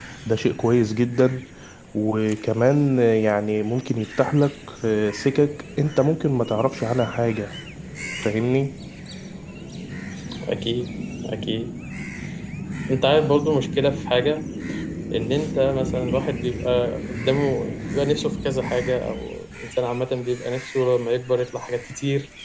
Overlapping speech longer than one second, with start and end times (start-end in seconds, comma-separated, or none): none